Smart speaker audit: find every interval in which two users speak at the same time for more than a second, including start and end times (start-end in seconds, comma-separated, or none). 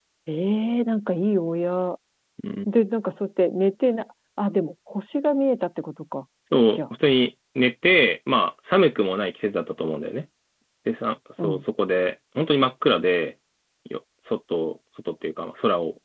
none